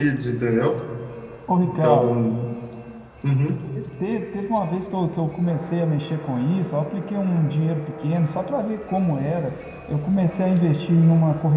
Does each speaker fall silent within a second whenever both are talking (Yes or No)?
Yes